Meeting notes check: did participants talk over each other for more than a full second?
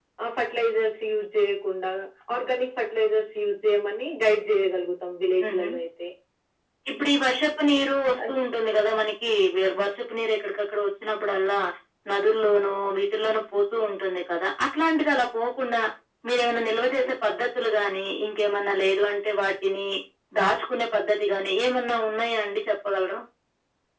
No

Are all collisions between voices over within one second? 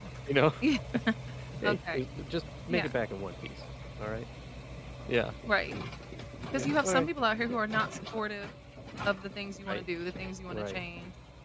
Yes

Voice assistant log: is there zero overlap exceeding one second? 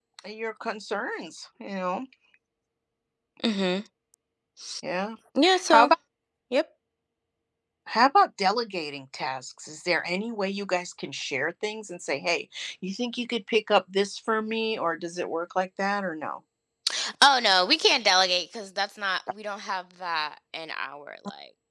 Yes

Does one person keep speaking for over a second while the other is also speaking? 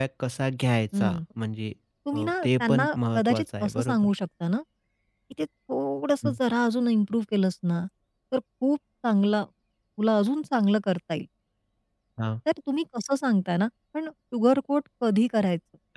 Yes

